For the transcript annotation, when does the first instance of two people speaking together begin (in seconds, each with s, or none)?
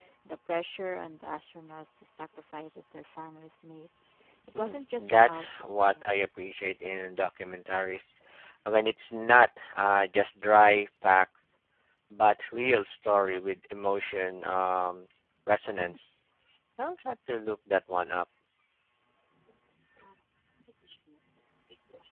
4.5 s